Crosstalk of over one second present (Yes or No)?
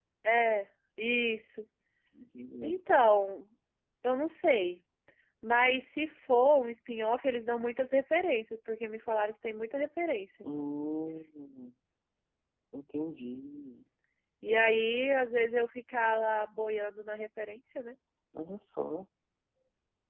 No